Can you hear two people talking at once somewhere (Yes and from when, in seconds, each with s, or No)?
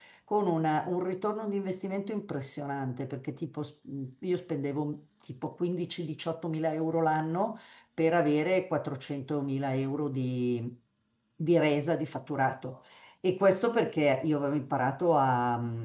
No